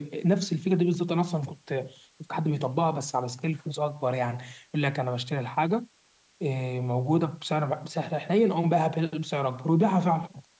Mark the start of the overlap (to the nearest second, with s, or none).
none